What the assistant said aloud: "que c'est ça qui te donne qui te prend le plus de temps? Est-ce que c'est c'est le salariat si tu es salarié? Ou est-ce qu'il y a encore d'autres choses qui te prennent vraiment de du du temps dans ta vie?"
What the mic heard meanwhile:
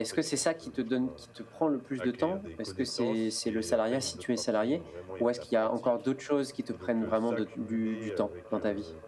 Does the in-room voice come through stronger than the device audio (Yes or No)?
No